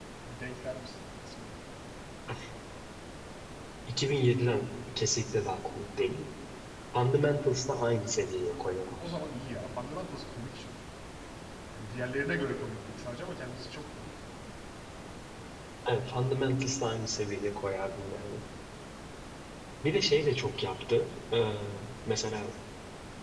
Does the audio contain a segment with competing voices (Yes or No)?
No